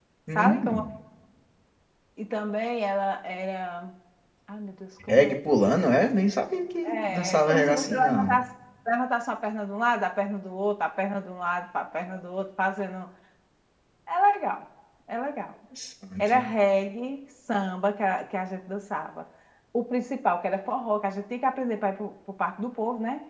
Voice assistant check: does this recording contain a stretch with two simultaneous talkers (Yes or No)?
Yes